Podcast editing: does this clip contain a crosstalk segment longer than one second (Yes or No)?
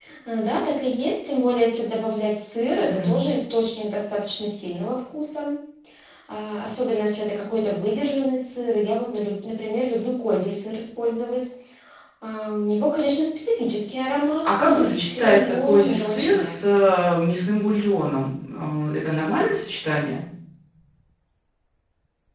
Yes